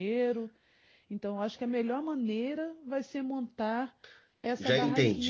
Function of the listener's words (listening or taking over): taking over